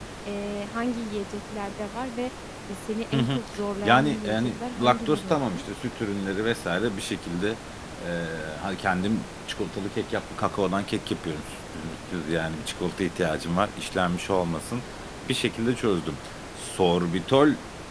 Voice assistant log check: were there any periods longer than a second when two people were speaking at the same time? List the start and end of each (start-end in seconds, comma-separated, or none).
3.8-5.6